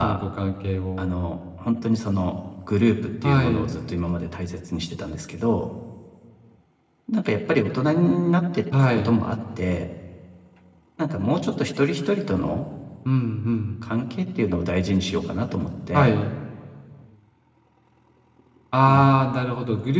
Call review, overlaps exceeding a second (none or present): none